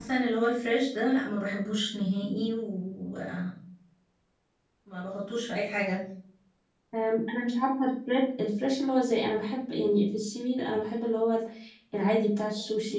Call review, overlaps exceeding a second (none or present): none